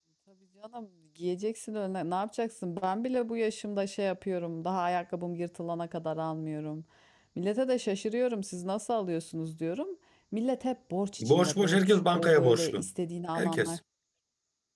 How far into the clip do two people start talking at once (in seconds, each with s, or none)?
11.2 s